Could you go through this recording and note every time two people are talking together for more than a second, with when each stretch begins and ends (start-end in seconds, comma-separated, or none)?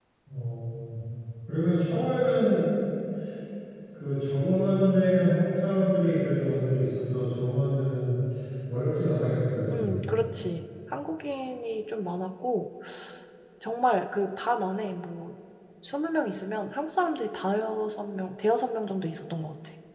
none